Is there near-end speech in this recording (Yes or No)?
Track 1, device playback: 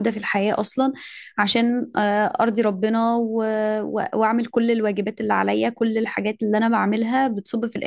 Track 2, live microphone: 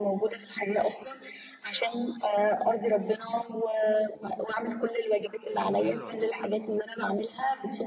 Yes